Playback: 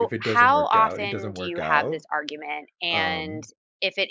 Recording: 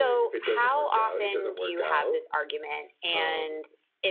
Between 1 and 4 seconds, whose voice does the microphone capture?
echo only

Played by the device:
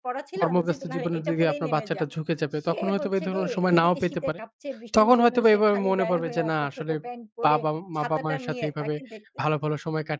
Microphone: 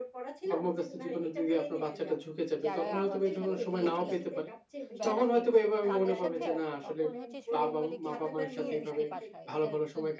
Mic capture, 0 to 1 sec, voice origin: echo only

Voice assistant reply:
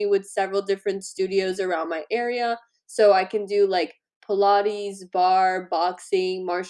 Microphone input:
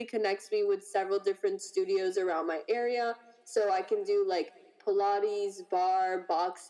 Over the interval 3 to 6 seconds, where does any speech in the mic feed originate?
echo only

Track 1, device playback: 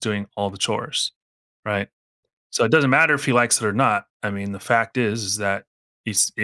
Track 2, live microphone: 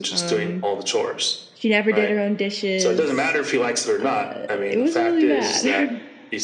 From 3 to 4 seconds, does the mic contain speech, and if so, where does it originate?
both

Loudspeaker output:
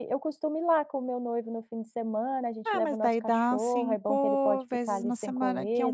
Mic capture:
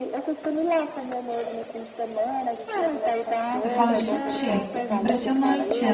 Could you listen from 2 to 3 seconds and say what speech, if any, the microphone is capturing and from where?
echo only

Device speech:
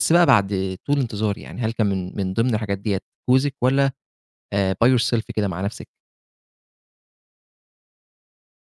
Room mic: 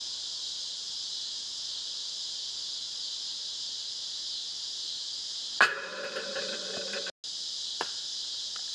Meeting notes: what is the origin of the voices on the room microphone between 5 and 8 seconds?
neither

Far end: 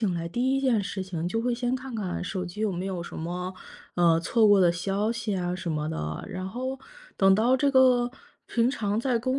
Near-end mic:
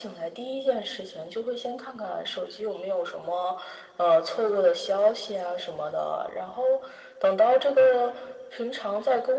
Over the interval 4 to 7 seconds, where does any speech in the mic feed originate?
echo only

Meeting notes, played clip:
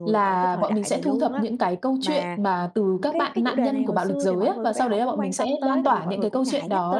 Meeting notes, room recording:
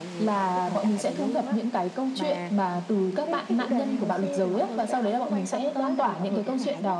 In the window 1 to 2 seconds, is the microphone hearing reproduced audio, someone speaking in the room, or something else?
echo only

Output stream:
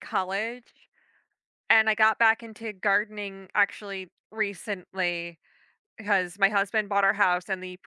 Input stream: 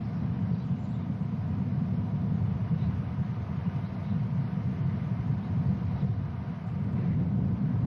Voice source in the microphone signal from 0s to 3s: neither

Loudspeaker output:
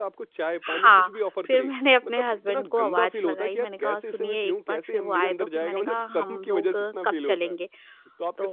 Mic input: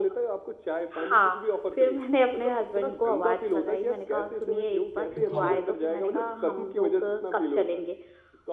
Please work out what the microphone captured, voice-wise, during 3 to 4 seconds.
echo only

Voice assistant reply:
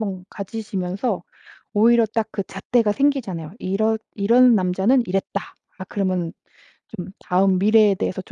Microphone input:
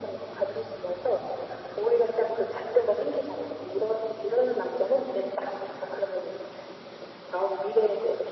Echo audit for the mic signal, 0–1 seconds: echo only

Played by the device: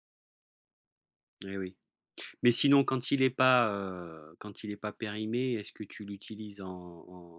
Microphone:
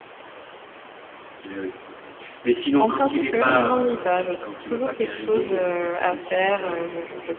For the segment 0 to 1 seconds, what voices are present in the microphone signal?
neither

